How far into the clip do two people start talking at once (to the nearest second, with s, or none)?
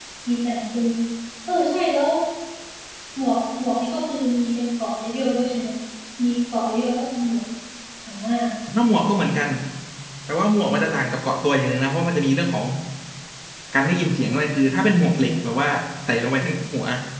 none